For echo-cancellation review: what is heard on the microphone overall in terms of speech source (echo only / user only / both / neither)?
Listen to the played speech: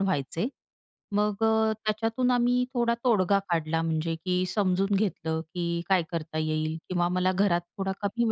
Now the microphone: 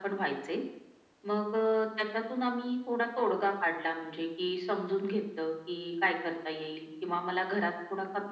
echo only